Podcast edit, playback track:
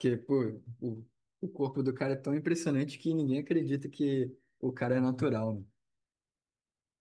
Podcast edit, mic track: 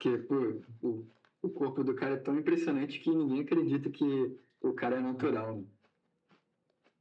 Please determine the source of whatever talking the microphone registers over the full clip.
echo only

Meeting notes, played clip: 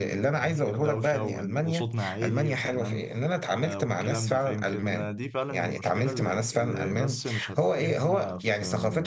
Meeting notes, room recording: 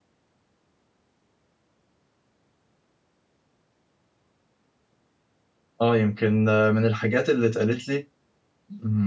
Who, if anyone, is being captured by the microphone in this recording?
user only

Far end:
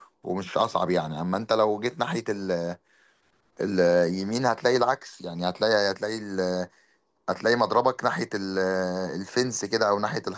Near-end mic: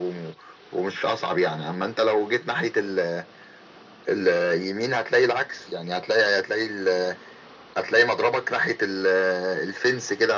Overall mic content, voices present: echo only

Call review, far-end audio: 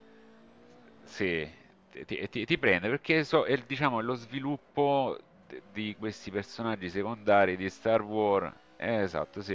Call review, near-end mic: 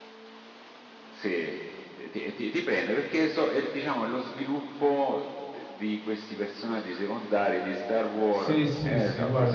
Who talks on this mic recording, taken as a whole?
both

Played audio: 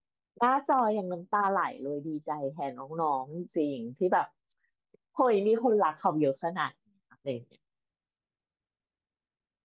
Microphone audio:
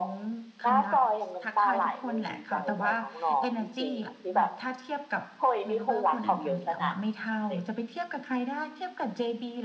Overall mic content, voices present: both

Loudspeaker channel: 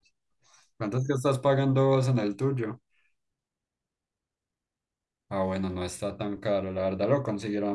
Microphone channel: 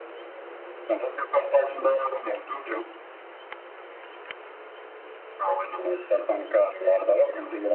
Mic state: echo only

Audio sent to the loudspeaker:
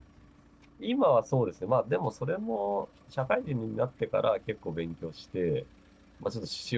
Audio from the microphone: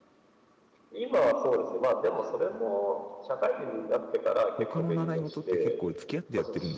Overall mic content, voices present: both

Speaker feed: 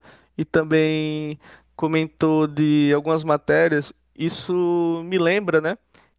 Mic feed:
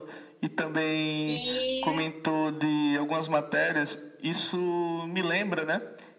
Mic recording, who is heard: both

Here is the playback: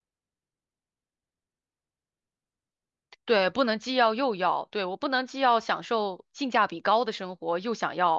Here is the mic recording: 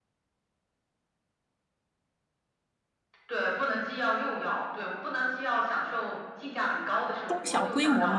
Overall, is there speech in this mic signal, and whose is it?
both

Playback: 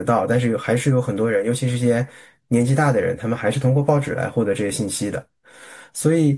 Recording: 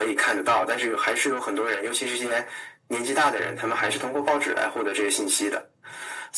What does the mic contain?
both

